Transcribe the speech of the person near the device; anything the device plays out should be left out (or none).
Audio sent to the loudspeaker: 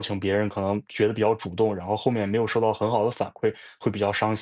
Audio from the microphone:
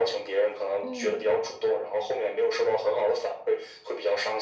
嗯嗯。